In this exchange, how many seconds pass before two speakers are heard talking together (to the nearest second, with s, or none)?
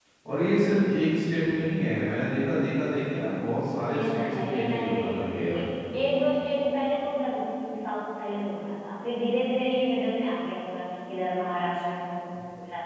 4 s